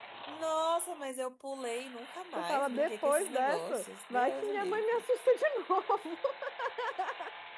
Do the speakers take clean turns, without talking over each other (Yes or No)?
No